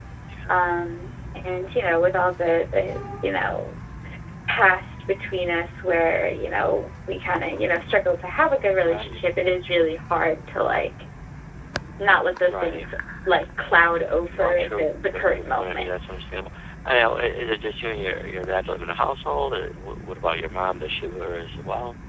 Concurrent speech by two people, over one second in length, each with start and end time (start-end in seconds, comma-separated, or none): 14.4-15.9